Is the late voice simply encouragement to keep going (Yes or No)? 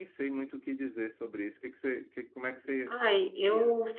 No